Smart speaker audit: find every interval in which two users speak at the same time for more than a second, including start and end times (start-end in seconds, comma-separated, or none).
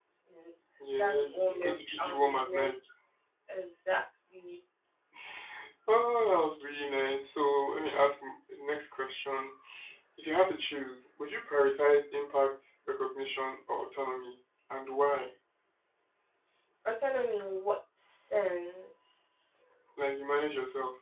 1.0-2.7